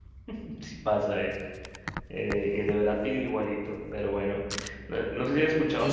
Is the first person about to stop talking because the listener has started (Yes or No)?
No